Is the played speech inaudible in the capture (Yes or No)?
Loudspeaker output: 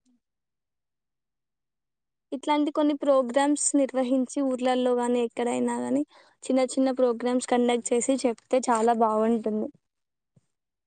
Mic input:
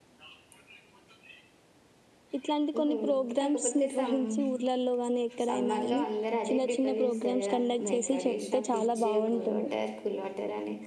No